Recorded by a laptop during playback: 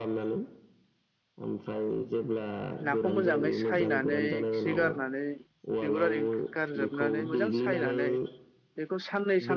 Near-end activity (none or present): present